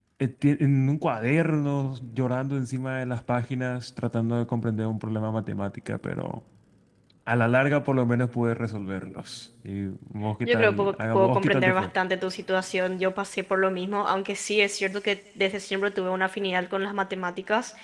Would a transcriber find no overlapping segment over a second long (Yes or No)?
No